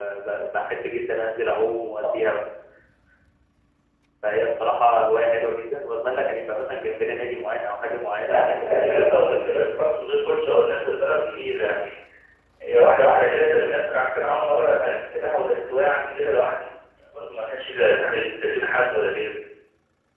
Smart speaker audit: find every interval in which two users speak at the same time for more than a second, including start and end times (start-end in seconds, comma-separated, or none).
8.2-9.6